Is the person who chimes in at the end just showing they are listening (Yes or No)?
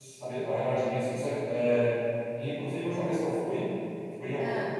Yes